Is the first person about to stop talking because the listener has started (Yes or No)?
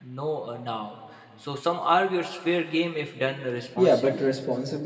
Yes